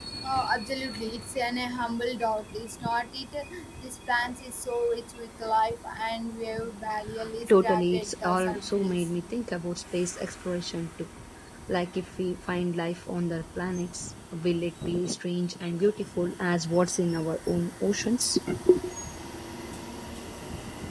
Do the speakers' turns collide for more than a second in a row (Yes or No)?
Yes